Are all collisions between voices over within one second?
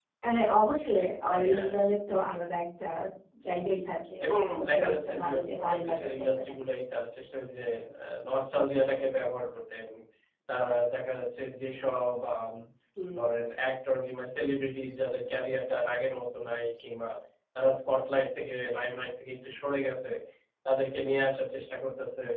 No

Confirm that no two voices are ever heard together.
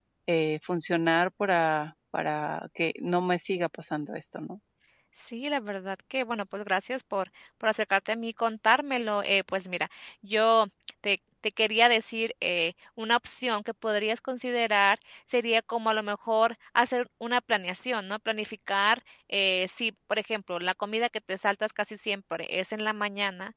Yes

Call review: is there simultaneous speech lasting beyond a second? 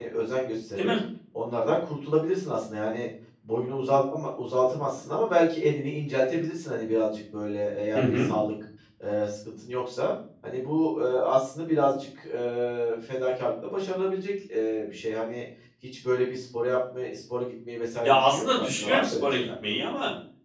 Yes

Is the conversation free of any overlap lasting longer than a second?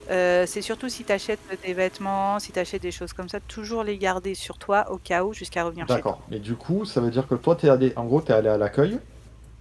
Yes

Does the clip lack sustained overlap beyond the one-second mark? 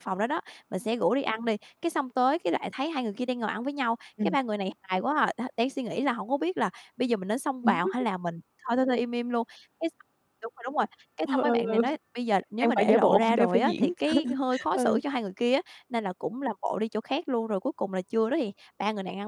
No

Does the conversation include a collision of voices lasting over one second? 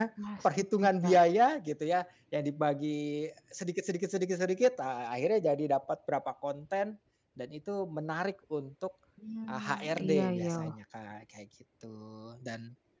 Yes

